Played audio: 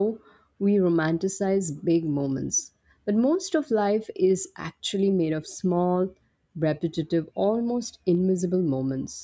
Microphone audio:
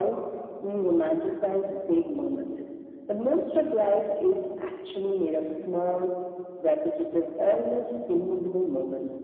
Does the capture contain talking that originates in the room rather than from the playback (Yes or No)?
No